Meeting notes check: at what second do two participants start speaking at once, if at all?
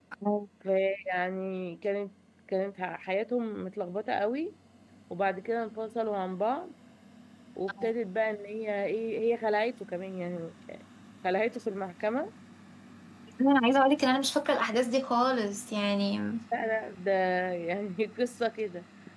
none

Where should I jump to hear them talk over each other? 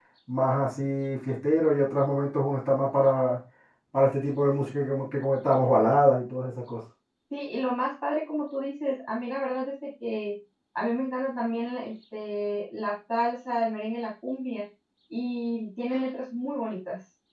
none

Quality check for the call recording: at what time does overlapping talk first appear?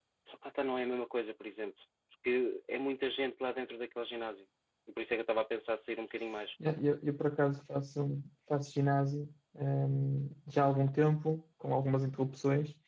none

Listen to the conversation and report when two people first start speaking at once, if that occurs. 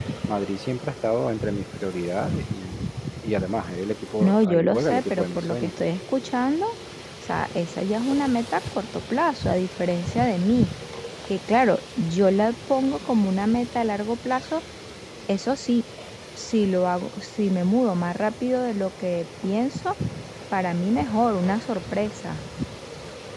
4.2 s

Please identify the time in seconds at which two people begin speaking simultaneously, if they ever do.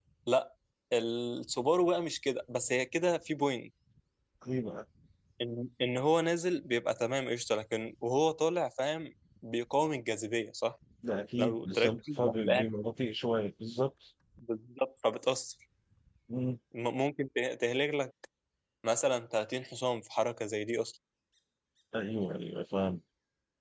11.4 s

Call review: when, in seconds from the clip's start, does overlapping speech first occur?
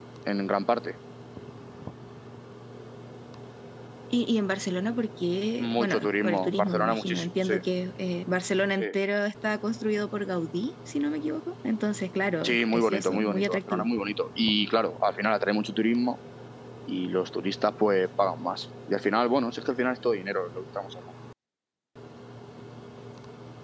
5.6 s

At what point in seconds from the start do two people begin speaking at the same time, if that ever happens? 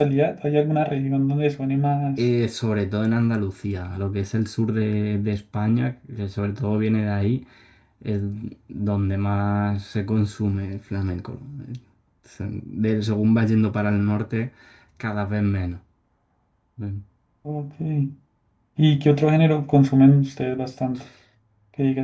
none

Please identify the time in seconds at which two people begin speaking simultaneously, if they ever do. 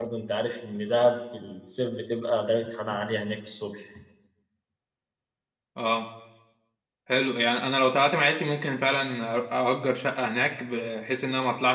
none

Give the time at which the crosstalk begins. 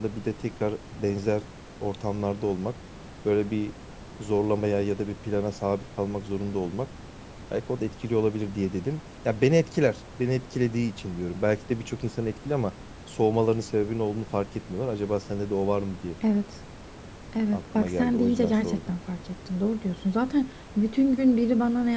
17.5 s

